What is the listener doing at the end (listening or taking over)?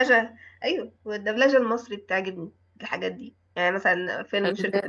listening